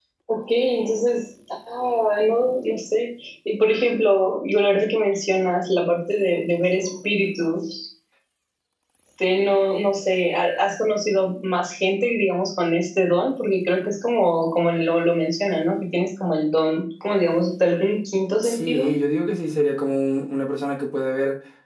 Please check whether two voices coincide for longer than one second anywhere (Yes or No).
No